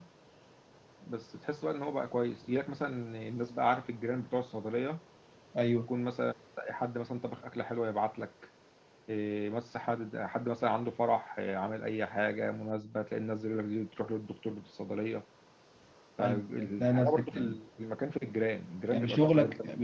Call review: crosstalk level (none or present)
present